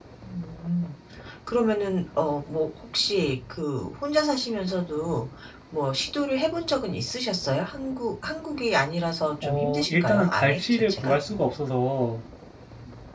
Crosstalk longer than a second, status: present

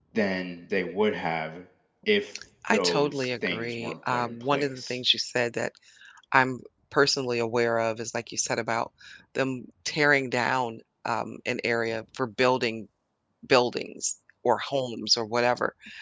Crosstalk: present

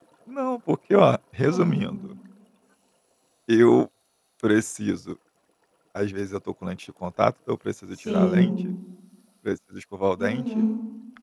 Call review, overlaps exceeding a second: none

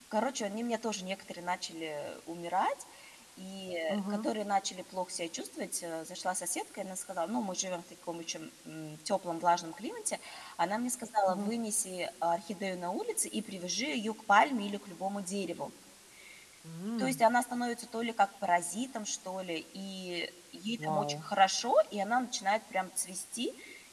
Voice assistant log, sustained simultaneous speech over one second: none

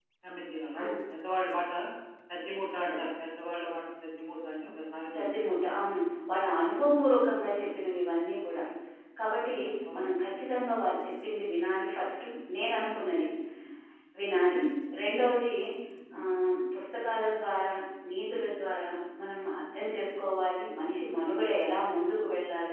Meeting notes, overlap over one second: none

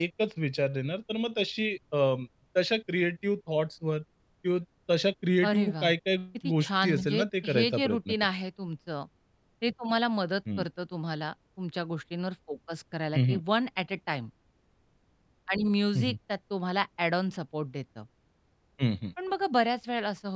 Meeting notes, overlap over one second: present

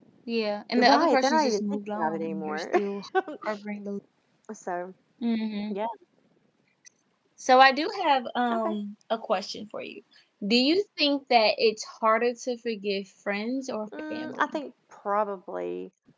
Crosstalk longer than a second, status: present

